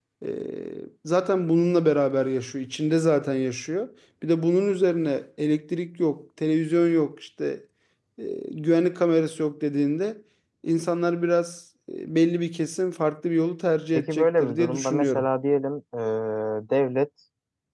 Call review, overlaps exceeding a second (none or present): present